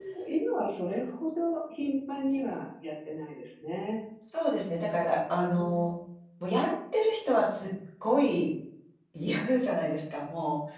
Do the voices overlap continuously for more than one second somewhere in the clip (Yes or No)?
No